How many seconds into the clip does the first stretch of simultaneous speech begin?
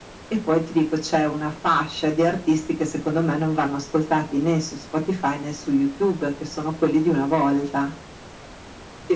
none

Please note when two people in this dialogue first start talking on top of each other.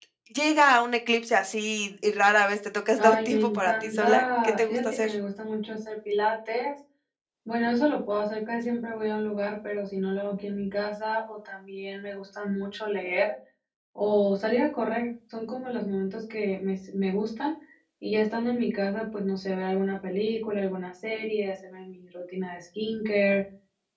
3.0 s

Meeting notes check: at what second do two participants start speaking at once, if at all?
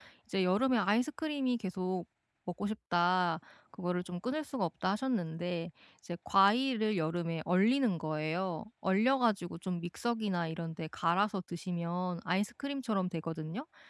none

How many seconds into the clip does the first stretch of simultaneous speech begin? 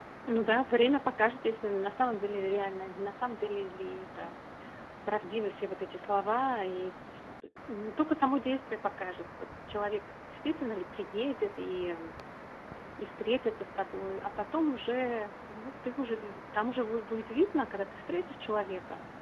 none

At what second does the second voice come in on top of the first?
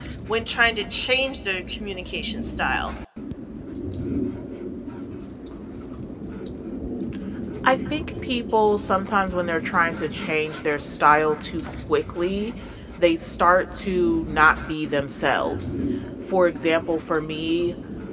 none

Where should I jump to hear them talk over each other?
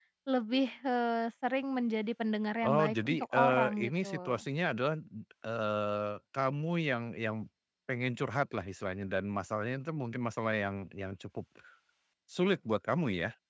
2.6 s

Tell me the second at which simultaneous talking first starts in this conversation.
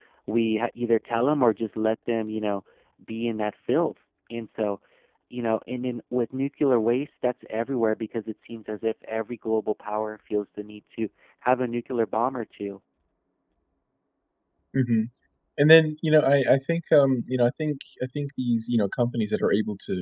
none

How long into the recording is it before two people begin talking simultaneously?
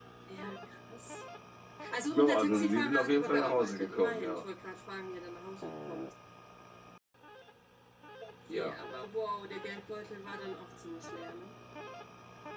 2.1 s

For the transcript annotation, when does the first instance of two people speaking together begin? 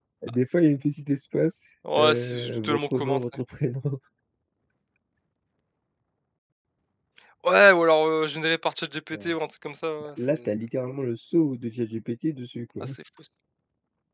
1.8 s

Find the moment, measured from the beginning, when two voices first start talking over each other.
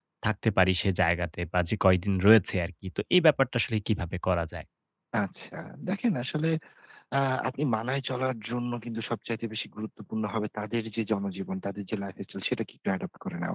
none

